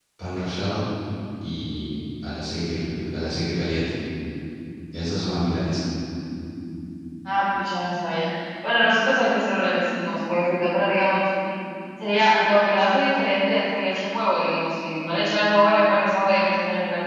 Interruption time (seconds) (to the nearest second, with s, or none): none